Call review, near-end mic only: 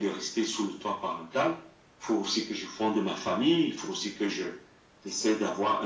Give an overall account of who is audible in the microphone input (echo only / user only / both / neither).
echo only